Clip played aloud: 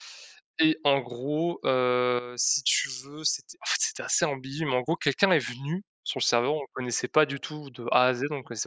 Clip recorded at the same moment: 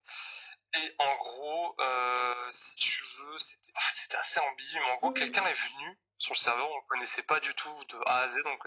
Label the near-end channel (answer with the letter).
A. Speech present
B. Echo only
A